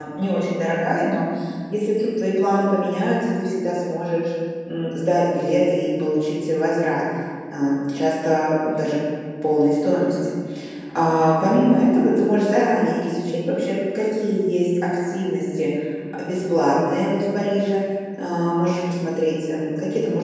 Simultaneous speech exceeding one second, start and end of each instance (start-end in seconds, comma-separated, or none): none